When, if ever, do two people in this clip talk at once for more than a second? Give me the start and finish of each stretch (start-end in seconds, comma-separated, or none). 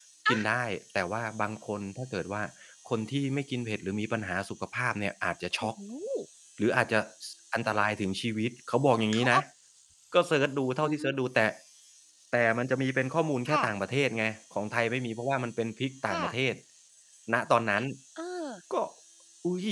none